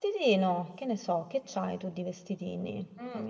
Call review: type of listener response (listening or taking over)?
taking over